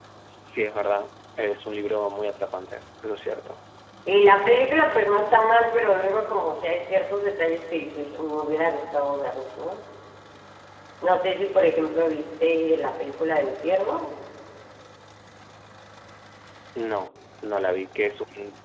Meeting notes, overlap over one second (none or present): none